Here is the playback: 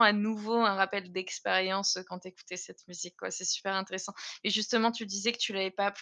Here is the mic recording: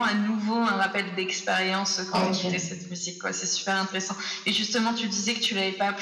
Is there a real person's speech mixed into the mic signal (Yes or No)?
Yes